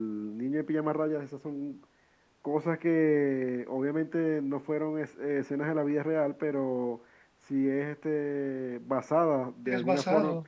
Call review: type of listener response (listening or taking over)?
listening